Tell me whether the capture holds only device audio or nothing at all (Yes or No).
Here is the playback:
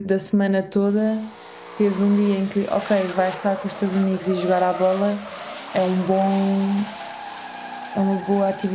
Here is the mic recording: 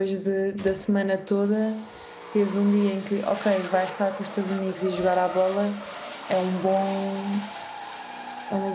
Yes